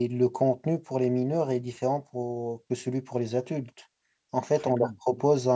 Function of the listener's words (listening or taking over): listening